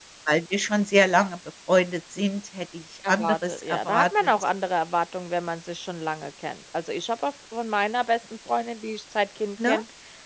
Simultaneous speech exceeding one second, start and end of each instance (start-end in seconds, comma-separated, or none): 3.1-4.3